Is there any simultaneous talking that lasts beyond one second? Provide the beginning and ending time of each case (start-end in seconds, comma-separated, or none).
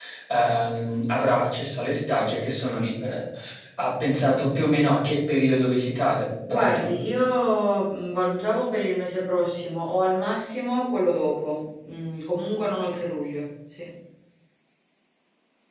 none